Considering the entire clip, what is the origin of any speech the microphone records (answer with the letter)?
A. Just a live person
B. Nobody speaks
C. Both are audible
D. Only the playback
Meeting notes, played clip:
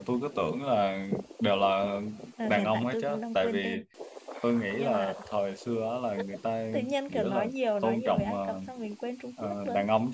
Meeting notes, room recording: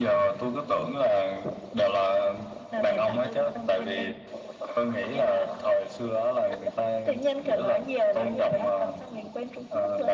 D